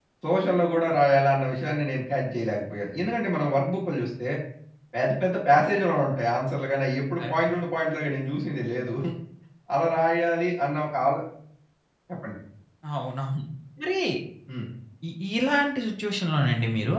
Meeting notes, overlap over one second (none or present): none